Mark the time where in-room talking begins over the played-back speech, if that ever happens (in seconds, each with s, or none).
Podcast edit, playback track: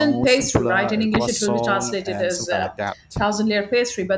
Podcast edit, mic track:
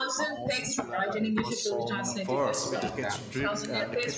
2.0 s